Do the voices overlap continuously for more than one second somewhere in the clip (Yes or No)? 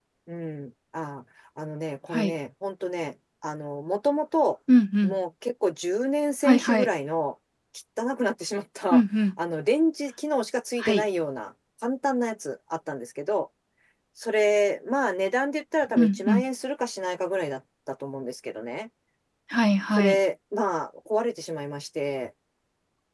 No